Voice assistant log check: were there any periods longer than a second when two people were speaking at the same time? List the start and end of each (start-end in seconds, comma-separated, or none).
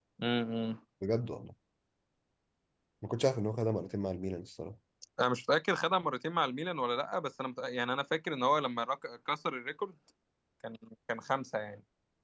none